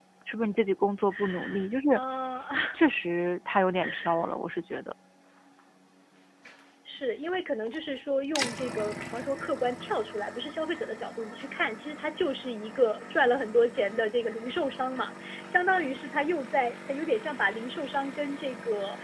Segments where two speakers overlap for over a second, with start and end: none

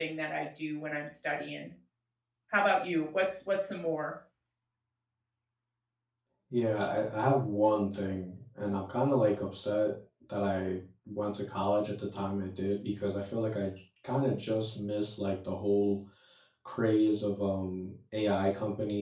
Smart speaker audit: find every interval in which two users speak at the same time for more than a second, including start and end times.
none

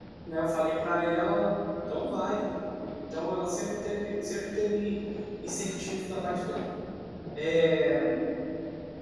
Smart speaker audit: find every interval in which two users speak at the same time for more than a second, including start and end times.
none

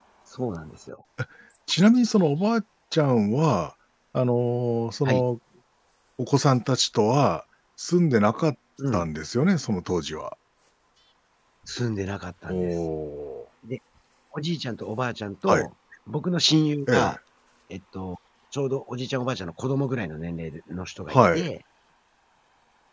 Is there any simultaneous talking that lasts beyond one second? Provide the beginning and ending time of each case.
none

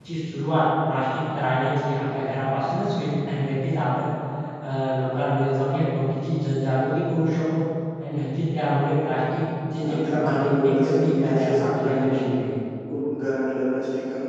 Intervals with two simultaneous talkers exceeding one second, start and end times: 9.9-12.2

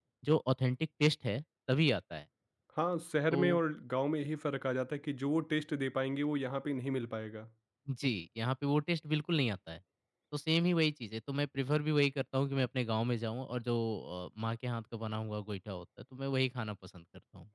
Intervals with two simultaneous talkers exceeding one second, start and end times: none

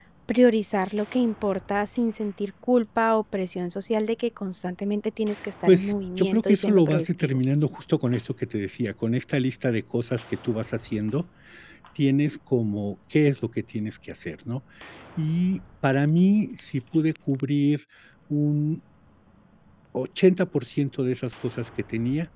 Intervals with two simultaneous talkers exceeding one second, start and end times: 5.7-7.4

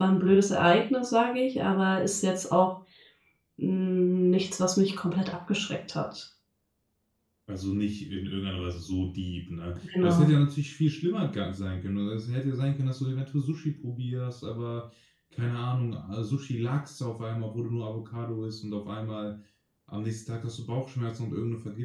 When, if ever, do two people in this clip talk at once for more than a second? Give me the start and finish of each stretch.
none

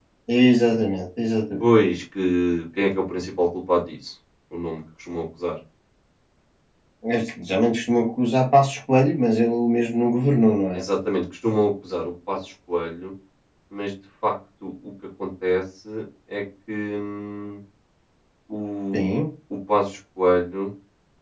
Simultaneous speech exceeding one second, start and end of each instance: none

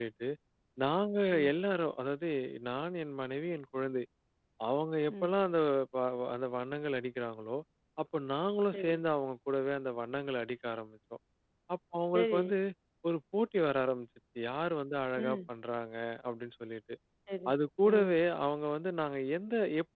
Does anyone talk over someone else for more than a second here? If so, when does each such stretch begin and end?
none

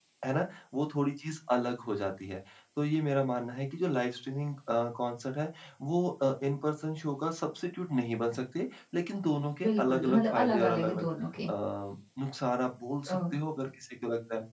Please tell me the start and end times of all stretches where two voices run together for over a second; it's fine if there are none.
9.6-11.0

